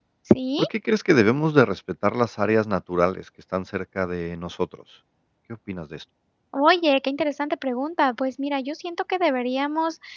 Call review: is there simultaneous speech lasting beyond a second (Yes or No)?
No